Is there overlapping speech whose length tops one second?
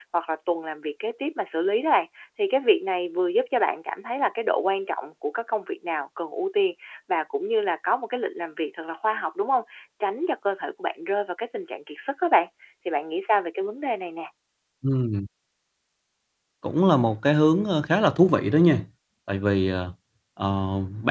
No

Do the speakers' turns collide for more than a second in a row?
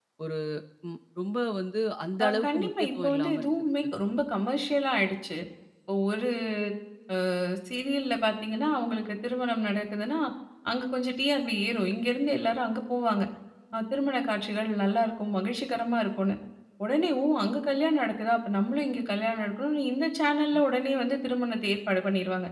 Yes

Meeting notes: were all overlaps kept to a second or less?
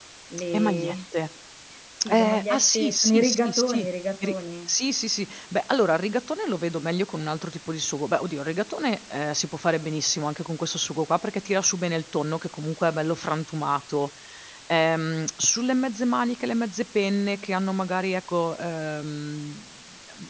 No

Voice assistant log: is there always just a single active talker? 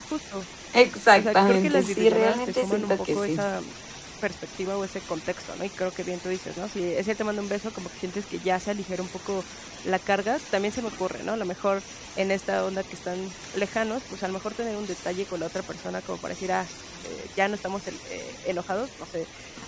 No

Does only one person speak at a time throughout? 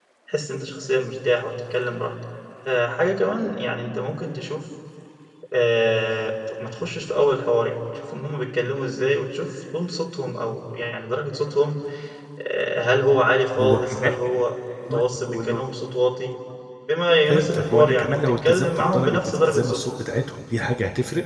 No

